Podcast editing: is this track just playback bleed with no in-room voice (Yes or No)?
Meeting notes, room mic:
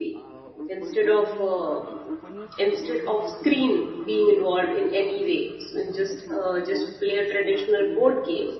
No